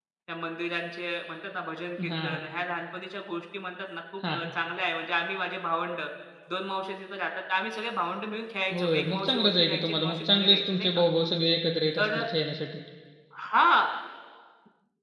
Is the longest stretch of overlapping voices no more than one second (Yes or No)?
No